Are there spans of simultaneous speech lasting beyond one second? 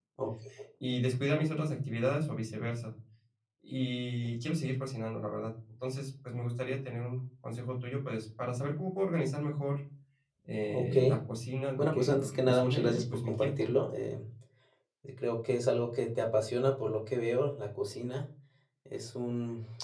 Yes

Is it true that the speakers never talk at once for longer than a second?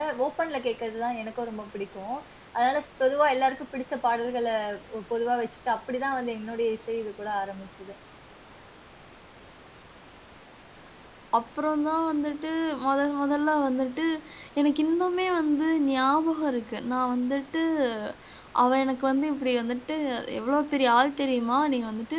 Yes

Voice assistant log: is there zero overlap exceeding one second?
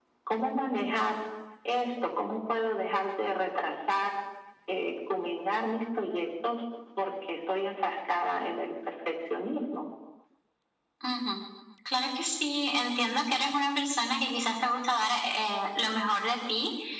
Yes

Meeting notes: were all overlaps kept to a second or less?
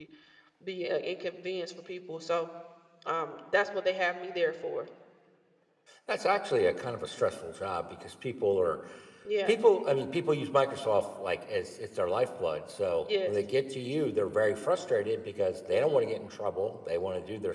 Yes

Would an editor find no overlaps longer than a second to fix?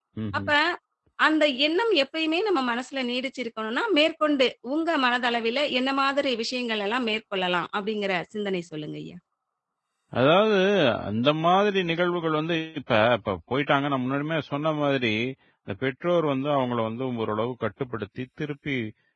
Yes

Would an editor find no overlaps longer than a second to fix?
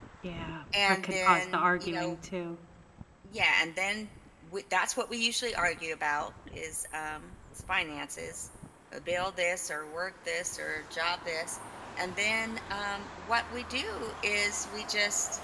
No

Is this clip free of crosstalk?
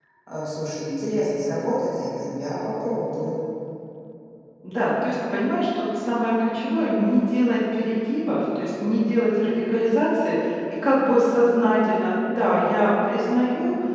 Yes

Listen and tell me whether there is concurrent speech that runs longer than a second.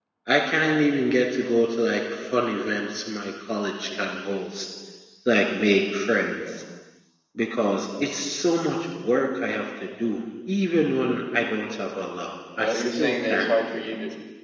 Yes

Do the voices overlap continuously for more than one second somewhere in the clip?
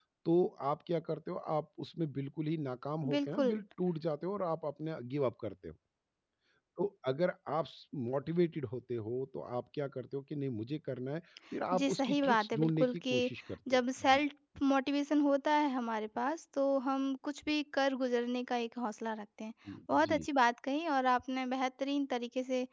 Yes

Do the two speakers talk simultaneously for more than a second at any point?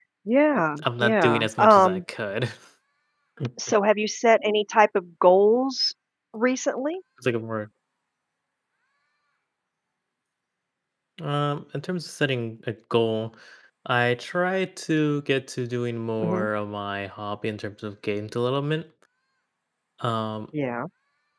Yes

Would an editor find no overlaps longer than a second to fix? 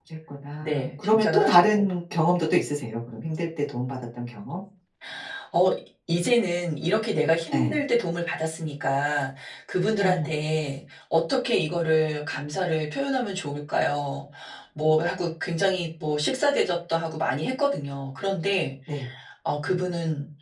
No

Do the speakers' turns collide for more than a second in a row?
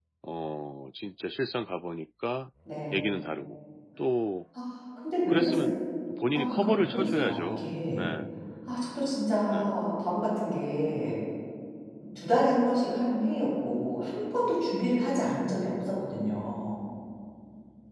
Yes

